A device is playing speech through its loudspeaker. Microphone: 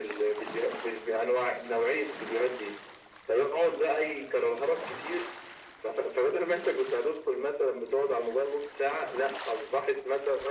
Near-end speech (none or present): none